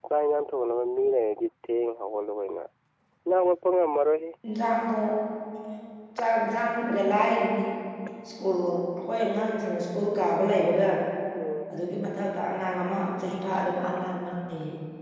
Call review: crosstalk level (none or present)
none